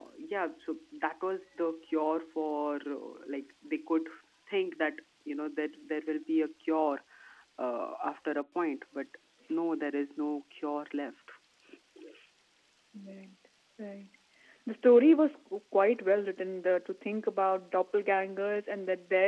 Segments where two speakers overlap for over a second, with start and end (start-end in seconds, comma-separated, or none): none